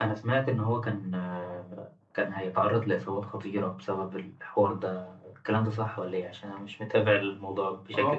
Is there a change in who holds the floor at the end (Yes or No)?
Yes